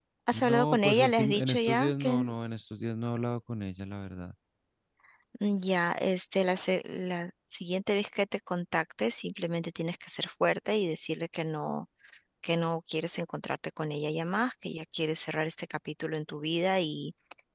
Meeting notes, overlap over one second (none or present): present